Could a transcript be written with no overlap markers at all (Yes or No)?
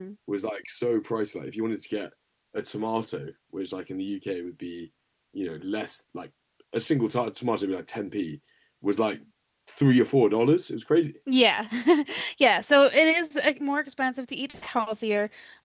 Yes